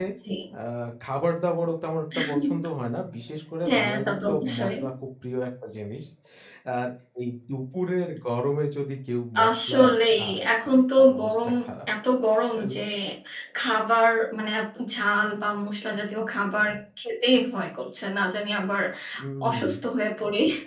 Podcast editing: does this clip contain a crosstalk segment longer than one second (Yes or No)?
Yes